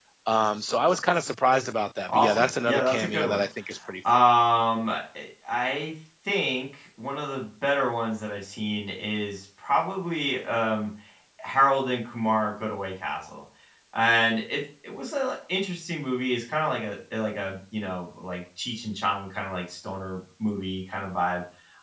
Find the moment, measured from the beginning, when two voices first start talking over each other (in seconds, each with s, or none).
2.1 s